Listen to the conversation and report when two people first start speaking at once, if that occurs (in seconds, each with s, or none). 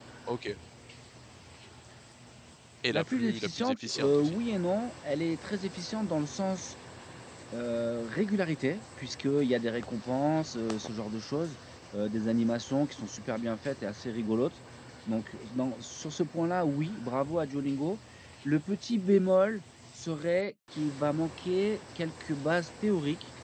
2.9 s